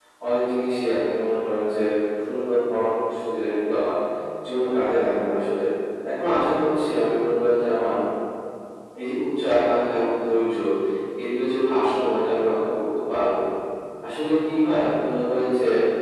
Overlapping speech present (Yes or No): No